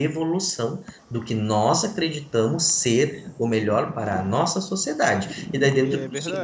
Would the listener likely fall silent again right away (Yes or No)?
Yes